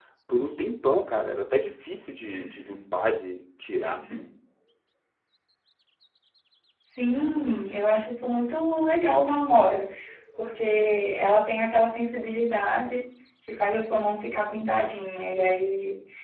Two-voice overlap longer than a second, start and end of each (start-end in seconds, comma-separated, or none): none